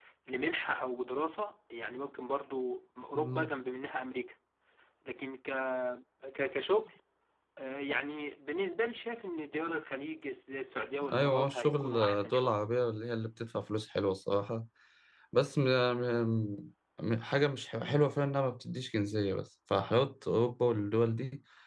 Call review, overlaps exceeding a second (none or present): present